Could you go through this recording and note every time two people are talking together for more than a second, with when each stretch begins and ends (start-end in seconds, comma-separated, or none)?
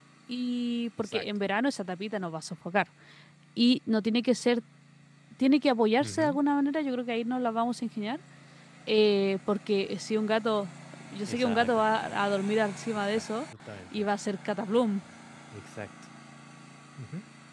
none